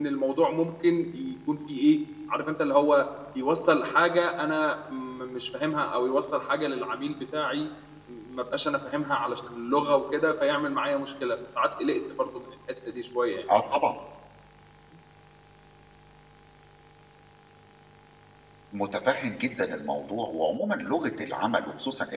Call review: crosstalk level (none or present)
none